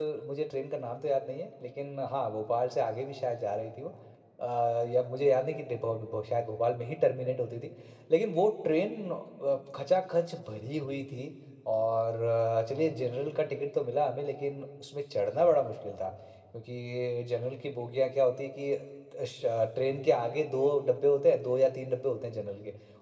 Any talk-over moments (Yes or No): No